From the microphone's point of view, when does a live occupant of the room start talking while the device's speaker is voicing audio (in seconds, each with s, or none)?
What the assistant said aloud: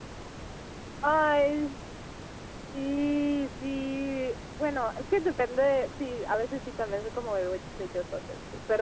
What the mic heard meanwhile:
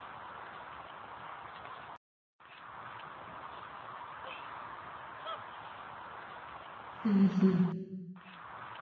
7.0 s